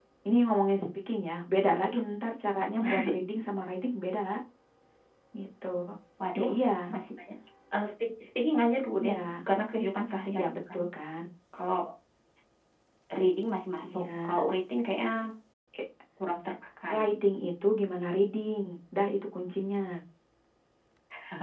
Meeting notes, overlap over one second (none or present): none